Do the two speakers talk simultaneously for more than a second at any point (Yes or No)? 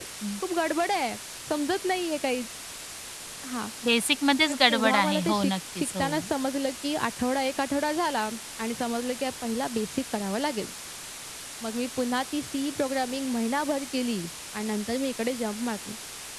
Yes